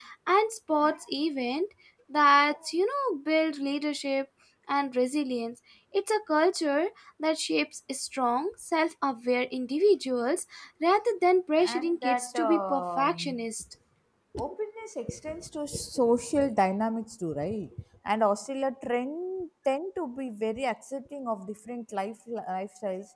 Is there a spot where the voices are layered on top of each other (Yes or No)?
Yes